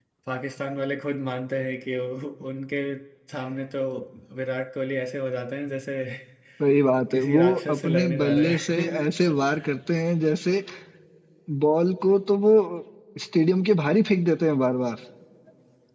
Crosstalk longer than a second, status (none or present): present